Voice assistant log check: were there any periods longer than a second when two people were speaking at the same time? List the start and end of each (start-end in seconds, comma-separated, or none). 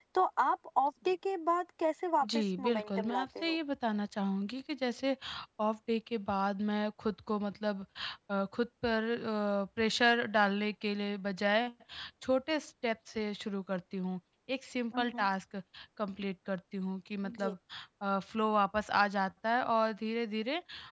2.4-3.6